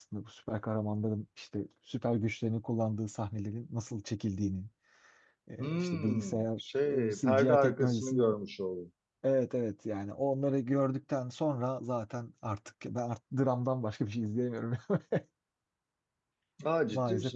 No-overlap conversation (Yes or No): No